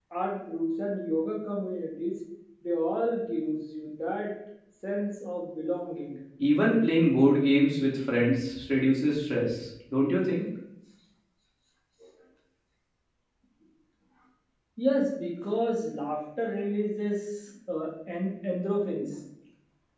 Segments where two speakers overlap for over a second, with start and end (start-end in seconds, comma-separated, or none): none